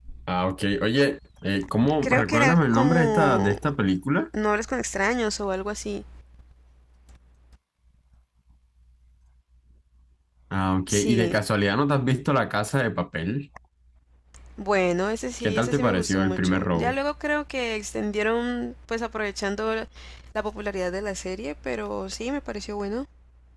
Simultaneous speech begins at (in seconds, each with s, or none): 2.0 s